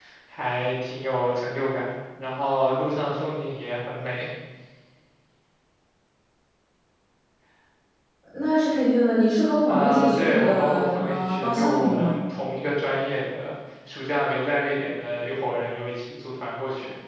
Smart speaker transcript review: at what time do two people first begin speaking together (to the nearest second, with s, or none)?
10 s